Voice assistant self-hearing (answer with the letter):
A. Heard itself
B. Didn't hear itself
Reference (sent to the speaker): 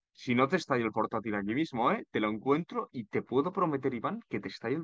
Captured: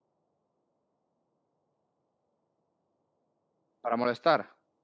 B